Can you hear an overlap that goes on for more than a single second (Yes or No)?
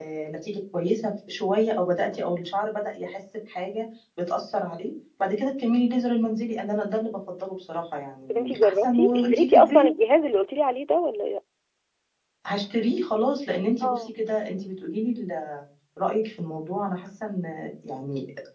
Yes